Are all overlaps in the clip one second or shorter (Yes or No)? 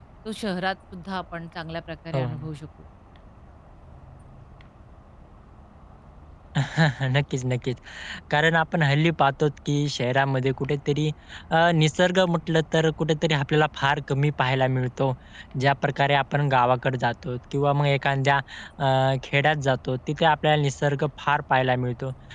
Yes